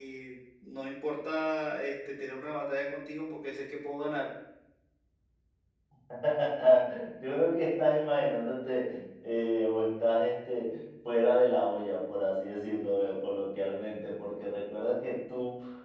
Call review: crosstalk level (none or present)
none